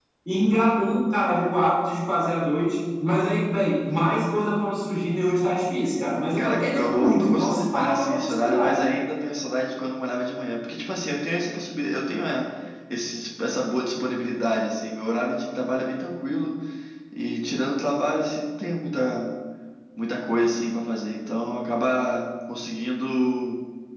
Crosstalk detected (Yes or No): Yes